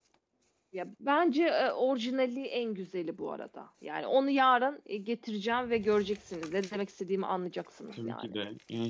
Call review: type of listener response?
taking over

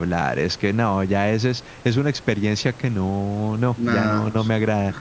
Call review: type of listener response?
taking over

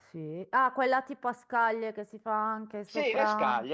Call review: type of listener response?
taking over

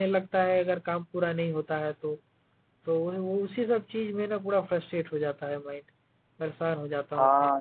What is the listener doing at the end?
taking over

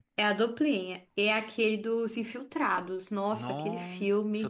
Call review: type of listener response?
taking over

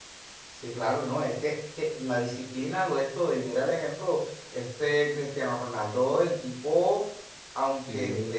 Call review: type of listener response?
listening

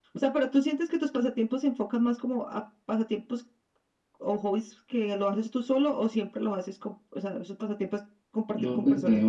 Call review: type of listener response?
taking over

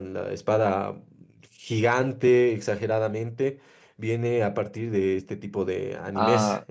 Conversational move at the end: taking over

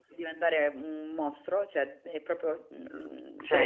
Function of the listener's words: taking over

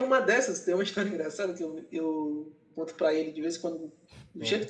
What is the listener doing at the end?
listening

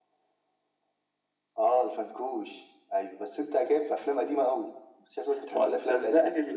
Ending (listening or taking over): taking over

